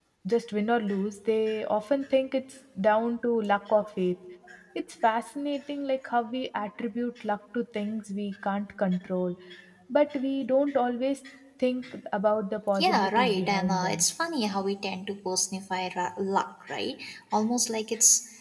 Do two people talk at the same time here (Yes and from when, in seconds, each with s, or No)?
Yes, from 12.8 s